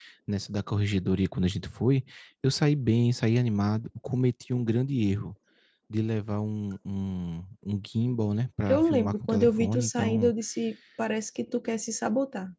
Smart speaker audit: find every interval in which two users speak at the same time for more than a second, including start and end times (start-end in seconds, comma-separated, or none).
8.7-10.3